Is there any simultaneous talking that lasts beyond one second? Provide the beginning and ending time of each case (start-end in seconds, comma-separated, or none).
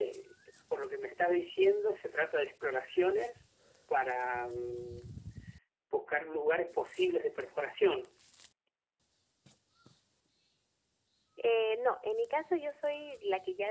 none